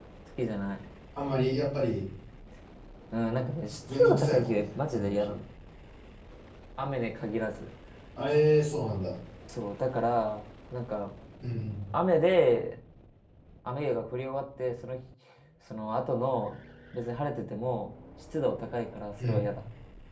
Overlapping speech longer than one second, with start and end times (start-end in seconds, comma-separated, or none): 3.9-5.4